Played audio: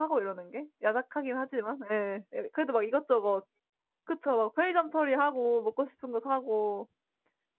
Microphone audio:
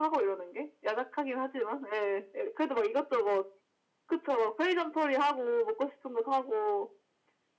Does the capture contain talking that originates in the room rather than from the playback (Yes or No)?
No